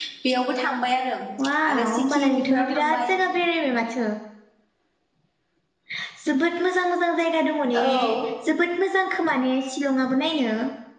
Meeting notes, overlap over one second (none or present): present